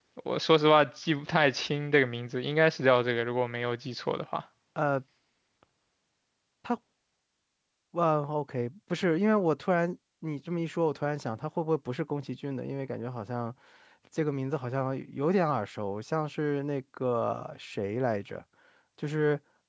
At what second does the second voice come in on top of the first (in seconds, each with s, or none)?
none